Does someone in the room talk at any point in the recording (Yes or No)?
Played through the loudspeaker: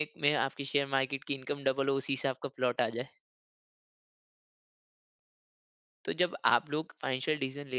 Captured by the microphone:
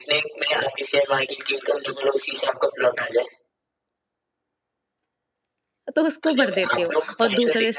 Yes